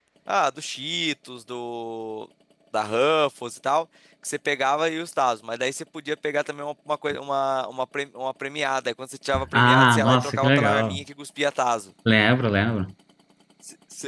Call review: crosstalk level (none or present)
present